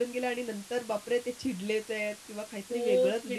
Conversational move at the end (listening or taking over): taking over